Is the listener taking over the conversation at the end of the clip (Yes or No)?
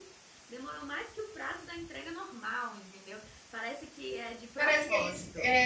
Yes